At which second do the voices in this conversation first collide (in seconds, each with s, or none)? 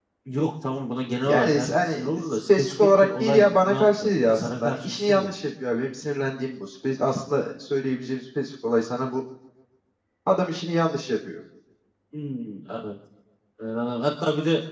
1.2 s